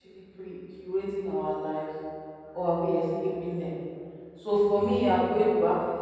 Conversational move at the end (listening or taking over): listening